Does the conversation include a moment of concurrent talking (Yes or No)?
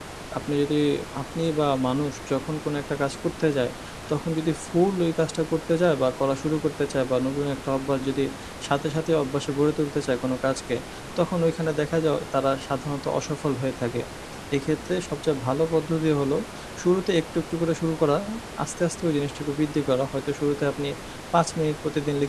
No